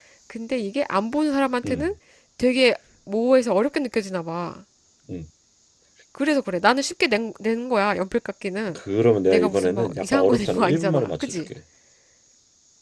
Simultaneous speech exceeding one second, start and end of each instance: 9.3-11.3

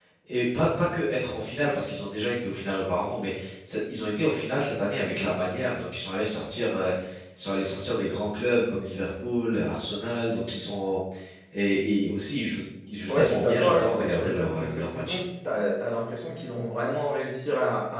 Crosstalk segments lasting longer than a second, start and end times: 13.1-15.2

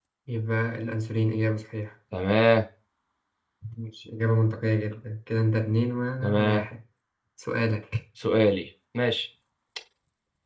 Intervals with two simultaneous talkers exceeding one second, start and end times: none

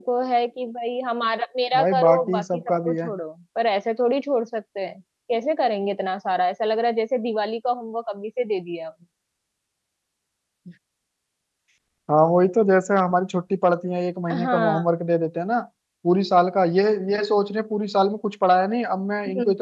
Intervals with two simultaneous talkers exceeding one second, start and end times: 1.8-3.1

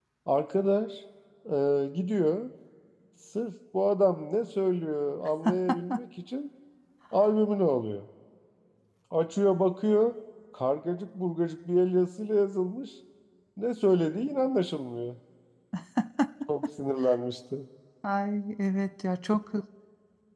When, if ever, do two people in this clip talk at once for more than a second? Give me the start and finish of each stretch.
none

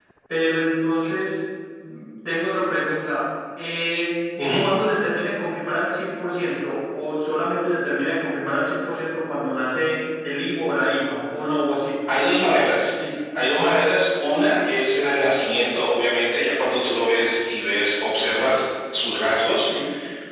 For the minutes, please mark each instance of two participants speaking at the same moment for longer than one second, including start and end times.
none

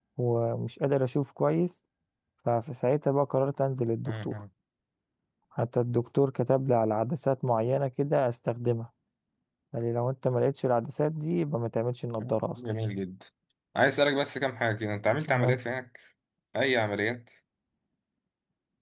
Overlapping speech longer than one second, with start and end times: none

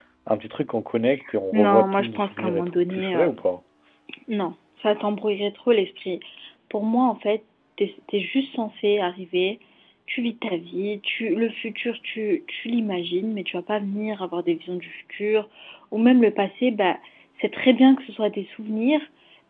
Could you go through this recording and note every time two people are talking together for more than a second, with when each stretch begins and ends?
1.6-3.3

